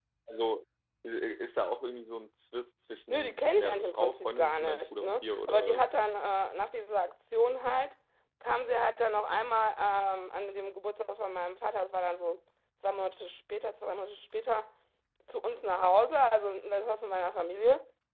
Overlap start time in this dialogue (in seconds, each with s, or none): 3.1 s